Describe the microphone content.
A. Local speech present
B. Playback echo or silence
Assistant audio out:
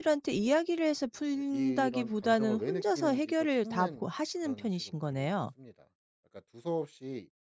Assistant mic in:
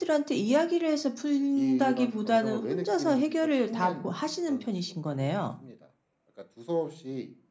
B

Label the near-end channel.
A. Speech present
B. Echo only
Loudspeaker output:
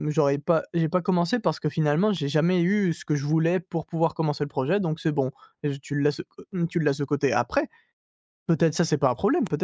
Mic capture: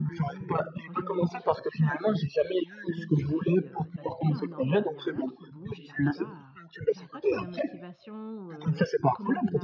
A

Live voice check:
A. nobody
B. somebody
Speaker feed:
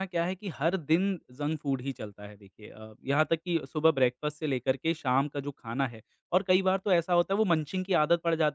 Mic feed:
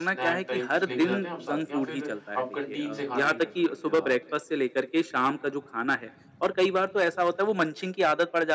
B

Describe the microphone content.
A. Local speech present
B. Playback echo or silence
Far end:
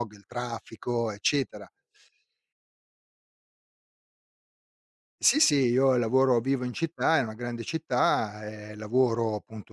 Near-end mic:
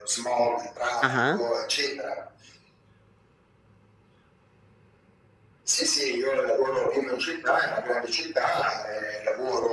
A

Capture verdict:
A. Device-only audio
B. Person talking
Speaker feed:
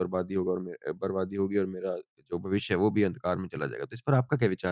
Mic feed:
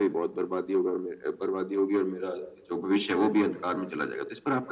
A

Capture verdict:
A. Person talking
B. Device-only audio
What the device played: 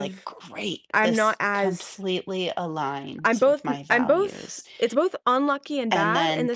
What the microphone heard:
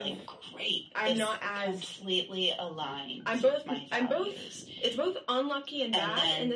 B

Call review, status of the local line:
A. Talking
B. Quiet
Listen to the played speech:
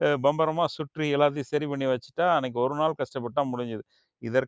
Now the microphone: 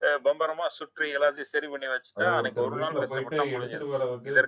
A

